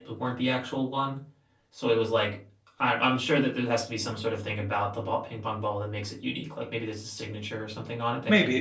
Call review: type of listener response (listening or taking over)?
taking over